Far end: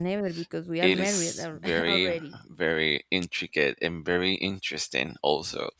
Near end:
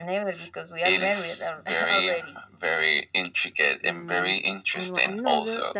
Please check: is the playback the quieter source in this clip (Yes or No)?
No